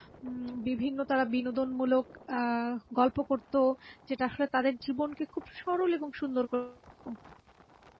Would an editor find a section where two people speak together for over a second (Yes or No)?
No